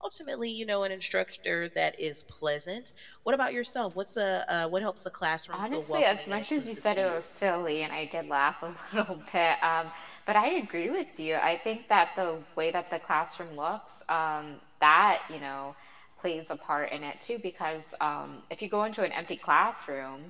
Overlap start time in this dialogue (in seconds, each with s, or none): 5.5 s